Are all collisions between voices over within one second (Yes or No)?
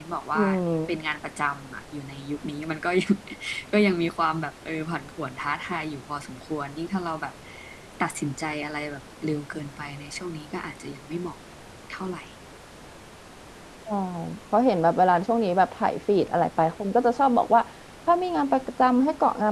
Yes